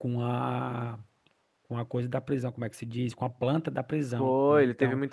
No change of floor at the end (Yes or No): No